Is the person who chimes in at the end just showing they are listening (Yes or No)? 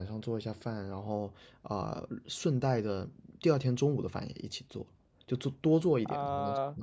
No